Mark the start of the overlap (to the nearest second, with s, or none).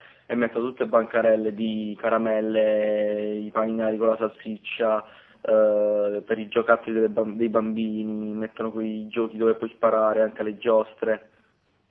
none